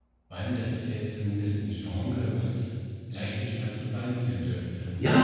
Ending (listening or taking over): taking over